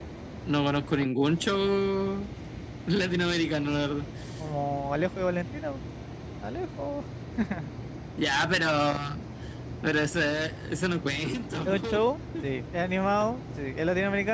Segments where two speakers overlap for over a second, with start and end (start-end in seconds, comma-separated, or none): none